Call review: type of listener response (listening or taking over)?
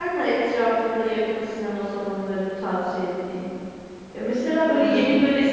listening